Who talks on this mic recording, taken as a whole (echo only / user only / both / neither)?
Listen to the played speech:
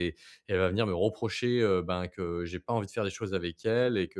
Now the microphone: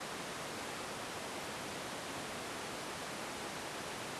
neither